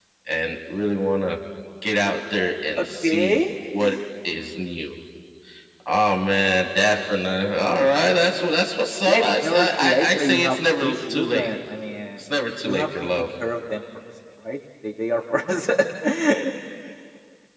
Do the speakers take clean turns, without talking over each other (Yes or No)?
No